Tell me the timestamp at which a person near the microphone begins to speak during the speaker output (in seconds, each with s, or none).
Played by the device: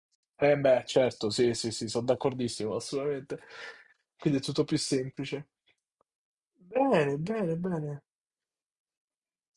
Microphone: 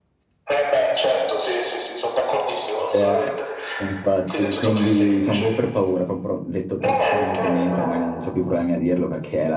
2.9 s